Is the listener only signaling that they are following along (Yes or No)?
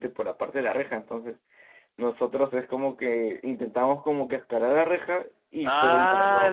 No